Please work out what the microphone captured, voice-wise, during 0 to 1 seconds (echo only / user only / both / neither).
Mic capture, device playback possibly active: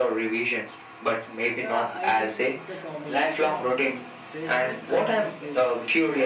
echo only